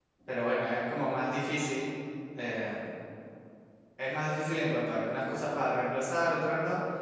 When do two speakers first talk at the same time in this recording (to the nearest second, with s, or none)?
none